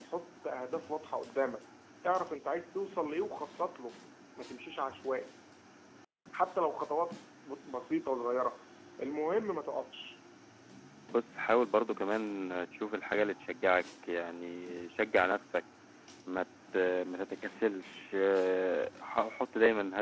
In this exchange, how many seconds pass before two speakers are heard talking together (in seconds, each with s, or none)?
none